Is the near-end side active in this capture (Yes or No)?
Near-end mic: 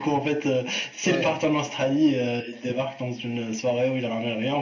Yes